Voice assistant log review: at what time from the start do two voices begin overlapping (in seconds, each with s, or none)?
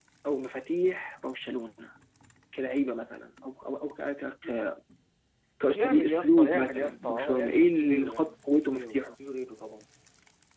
5.7 s